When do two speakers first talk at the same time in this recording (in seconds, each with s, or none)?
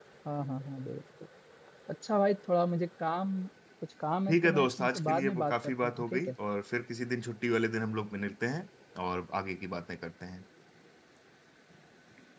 4.3 s